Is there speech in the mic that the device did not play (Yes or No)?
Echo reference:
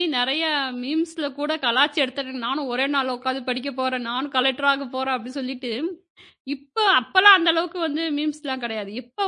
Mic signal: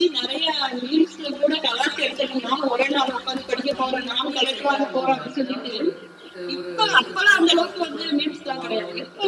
Yes